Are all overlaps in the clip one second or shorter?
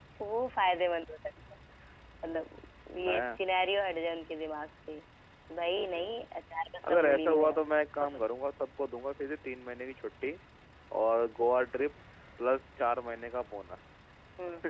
No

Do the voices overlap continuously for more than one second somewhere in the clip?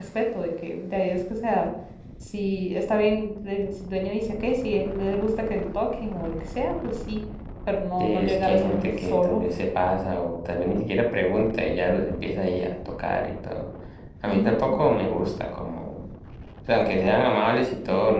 Yes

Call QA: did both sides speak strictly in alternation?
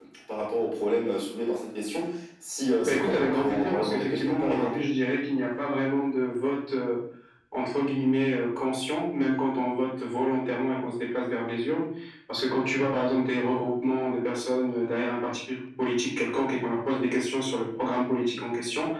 No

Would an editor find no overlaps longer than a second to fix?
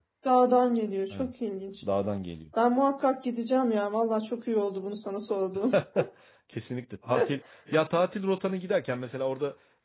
Yes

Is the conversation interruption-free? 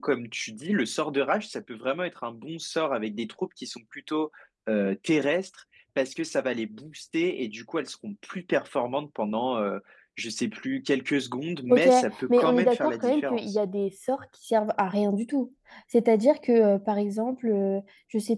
No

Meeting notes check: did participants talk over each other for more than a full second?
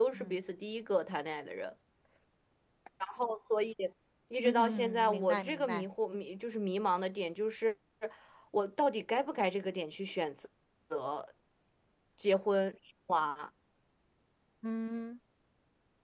Yes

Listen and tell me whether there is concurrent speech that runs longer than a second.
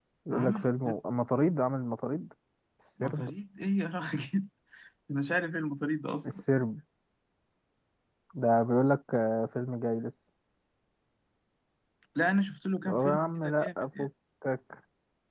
Yes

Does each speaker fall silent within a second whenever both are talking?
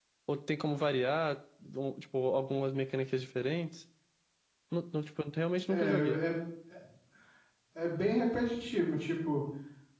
Yes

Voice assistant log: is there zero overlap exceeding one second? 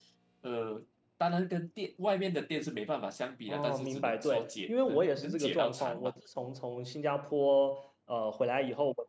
No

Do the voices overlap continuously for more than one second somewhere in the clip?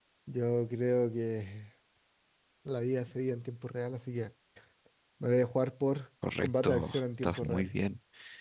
Yes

